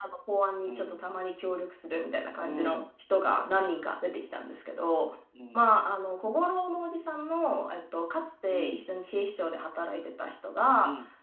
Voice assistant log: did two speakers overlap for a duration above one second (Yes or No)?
No